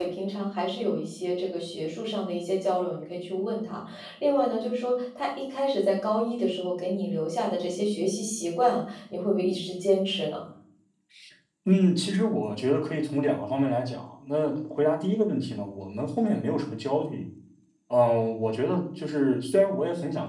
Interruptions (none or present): none